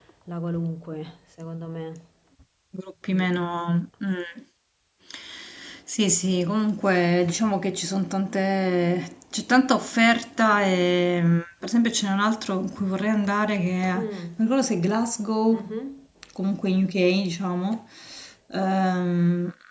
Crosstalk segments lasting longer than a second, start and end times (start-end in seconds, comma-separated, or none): none